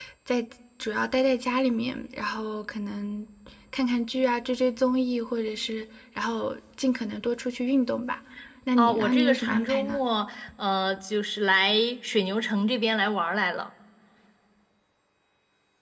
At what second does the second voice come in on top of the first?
8.8 s

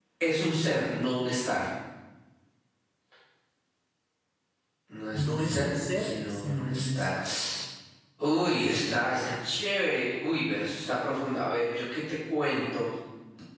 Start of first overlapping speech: 5.1 s

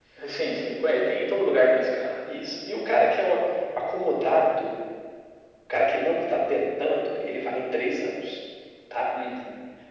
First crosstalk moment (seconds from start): none

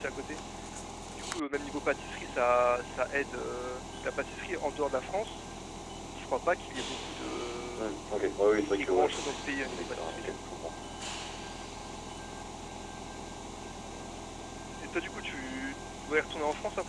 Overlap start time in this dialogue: 8.6 s

